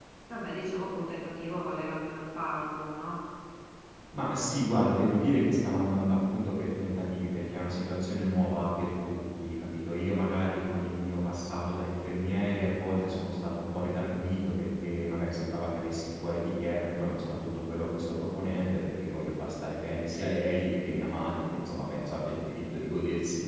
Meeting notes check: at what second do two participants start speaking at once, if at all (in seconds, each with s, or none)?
none